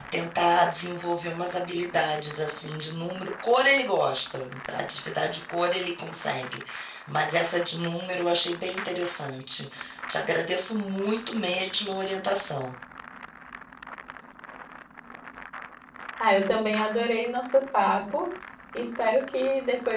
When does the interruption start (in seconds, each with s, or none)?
none